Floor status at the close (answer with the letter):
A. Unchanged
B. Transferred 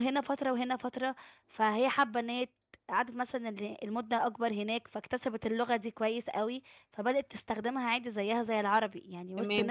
B